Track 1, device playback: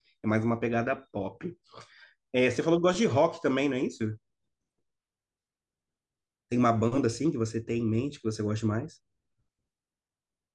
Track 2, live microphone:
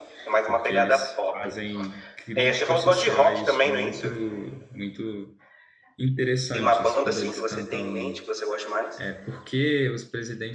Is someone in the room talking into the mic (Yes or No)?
Yes